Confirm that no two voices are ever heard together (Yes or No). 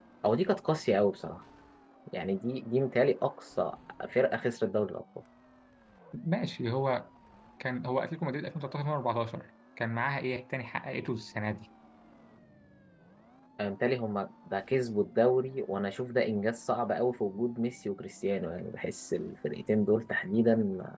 Yes